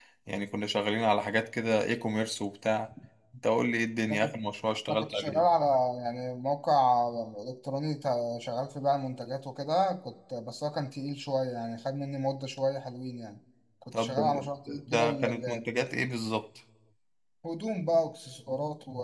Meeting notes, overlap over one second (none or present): present